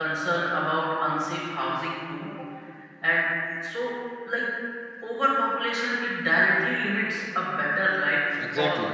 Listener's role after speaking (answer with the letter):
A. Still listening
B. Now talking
B